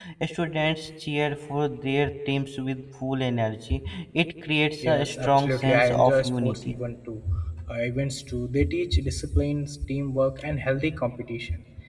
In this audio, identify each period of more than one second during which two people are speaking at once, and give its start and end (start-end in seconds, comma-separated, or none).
4.8-6.7